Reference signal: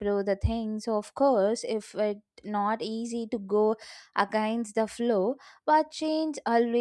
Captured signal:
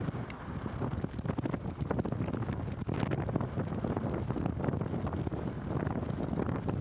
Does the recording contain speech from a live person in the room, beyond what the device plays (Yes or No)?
No